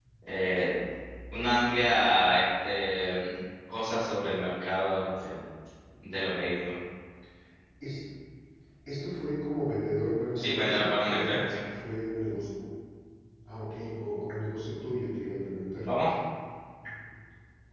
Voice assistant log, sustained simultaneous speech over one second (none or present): present